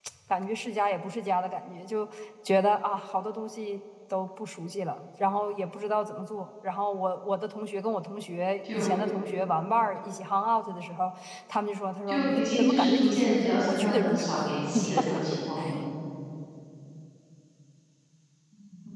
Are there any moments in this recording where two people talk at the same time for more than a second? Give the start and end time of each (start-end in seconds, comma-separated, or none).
12.1-14.2